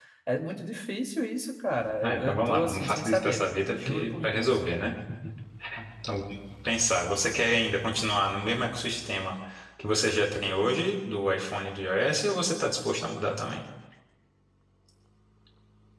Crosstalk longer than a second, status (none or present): present